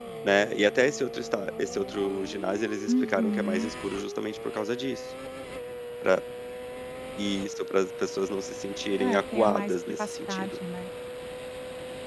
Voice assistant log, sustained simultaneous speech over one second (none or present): present